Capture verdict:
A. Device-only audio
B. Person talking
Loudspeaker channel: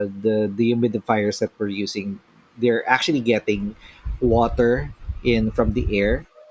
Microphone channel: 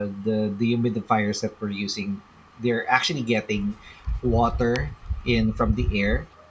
A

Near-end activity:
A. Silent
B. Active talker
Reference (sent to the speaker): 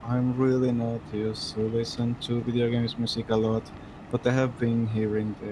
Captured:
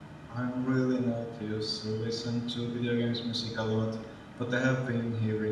A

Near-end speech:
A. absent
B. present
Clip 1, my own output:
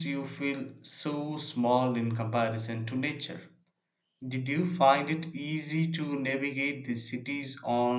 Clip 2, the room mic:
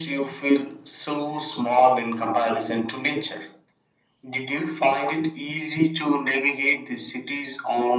A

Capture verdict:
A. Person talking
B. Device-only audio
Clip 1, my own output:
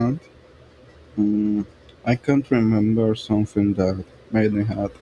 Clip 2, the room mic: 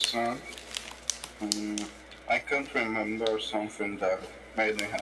B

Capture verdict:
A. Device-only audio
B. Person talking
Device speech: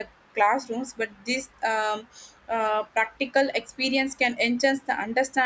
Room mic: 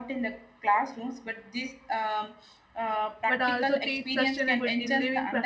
B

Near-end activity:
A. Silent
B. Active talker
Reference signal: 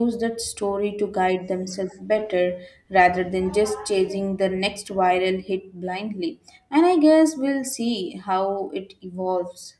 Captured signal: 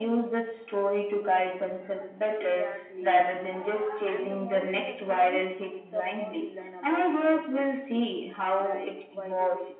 B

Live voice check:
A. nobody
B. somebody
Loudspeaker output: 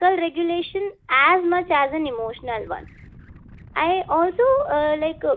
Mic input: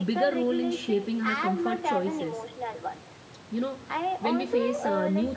B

